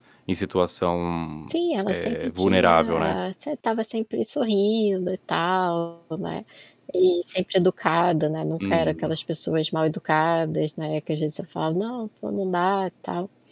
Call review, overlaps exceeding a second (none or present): present